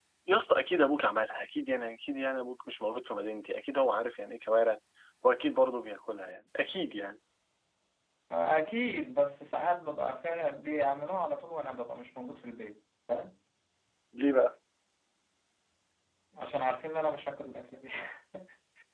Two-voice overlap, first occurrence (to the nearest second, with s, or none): none